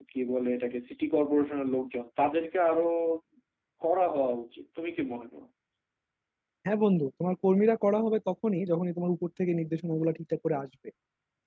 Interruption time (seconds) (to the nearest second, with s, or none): none